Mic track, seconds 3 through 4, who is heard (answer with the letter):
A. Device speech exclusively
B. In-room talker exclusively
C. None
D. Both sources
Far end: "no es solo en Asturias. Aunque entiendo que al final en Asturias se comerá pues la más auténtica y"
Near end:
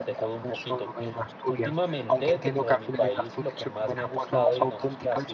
D